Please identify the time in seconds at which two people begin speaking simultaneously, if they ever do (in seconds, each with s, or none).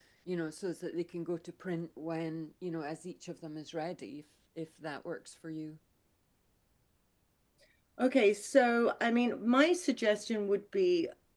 none